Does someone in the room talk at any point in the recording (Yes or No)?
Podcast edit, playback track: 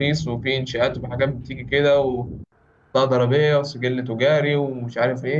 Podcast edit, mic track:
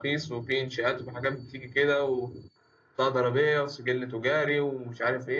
No